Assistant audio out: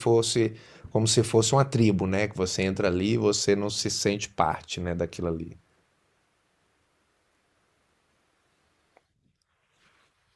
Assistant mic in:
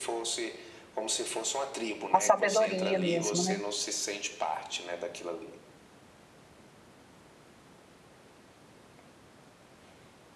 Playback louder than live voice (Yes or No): No